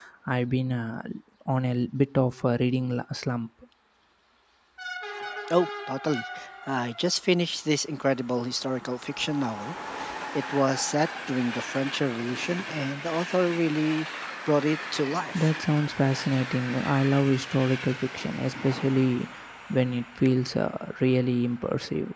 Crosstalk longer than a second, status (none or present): none